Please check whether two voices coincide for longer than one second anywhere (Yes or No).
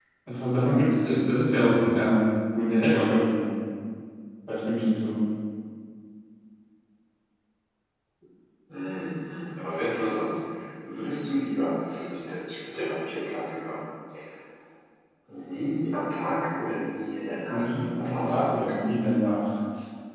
Yes